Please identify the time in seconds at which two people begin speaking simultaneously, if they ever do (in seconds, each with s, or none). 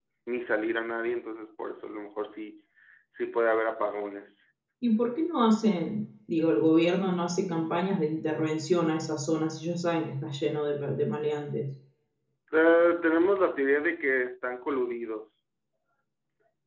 none